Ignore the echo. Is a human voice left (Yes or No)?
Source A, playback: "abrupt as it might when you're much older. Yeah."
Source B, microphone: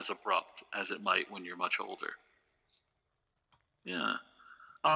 No